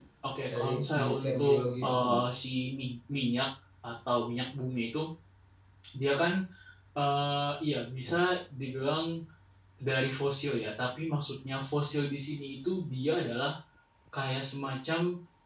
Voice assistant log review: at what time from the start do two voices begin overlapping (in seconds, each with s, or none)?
0.5 s